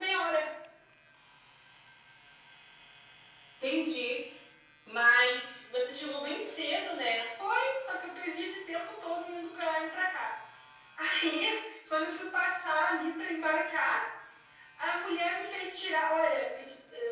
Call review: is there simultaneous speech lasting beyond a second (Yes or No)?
No